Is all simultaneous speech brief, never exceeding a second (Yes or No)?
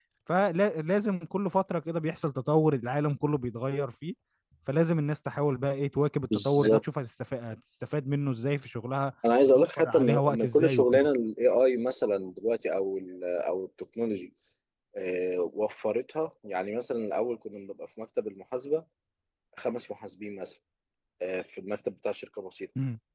No